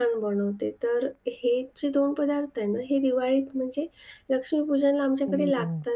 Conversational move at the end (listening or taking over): listening